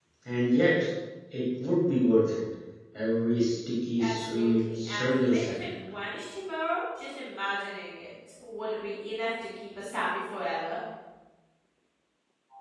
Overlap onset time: 4.0 s

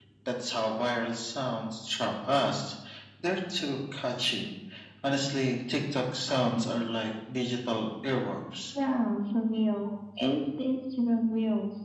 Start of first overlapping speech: none

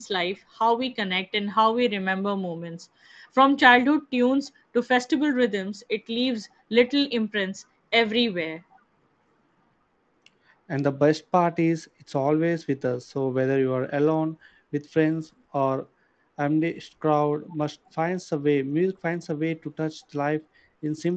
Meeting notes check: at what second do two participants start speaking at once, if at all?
none

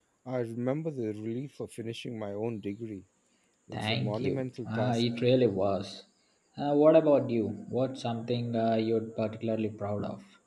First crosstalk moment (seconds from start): 3.7 s

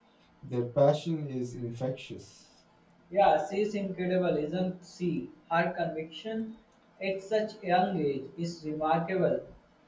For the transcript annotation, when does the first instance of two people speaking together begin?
none

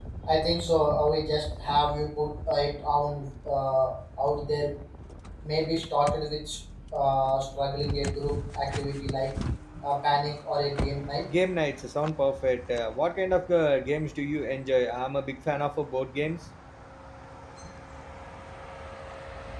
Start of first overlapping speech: none

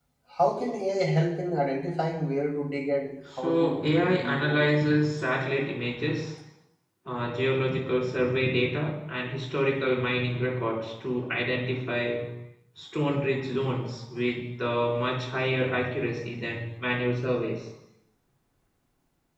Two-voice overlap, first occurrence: 3.4 s

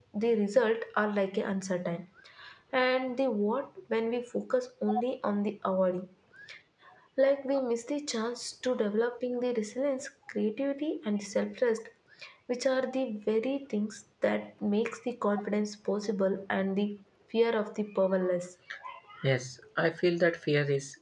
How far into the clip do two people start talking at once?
none

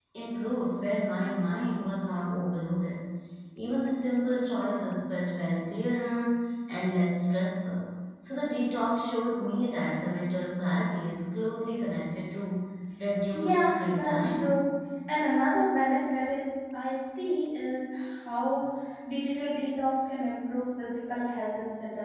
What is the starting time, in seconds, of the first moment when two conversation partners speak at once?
13.3 s

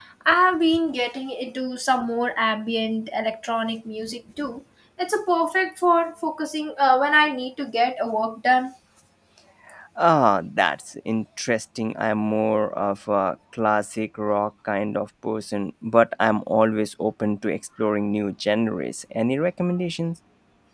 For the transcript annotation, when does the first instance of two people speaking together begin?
none

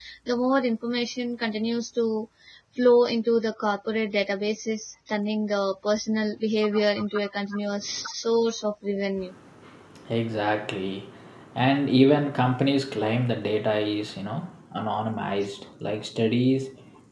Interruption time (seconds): none

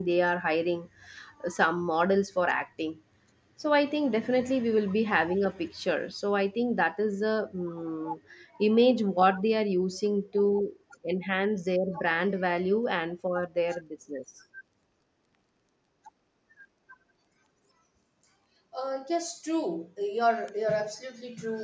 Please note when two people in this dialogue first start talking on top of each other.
none

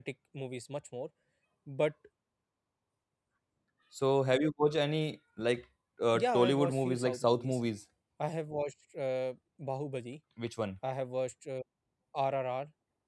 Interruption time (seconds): 6.1 s

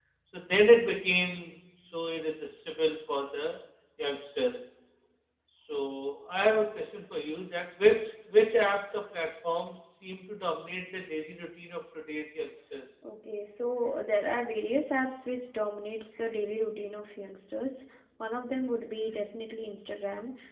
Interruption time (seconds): none

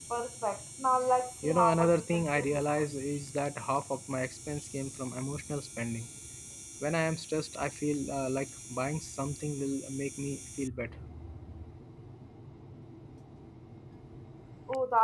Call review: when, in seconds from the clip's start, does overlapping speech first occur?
1.4 s

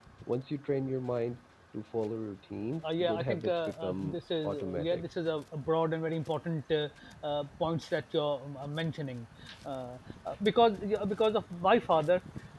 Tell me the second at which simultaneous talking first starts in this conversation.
2.8 s

